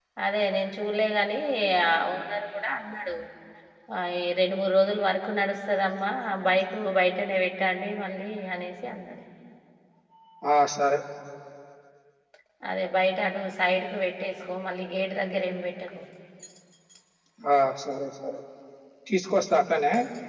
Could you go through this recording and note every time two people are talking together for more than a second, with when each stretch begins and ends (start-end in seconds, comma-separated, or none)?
none